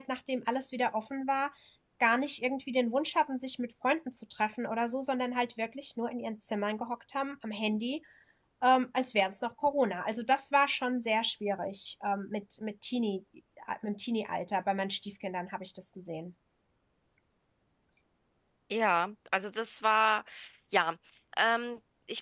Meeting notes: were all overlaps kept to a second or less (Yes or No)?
Yes